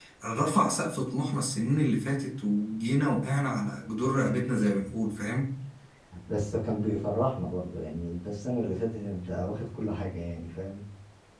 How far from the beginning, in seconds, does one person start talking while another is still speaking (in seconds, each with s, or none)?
none